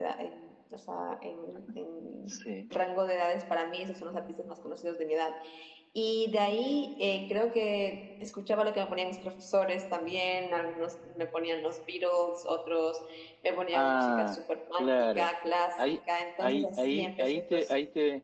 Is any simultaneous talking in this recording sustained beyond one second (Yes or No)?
Yes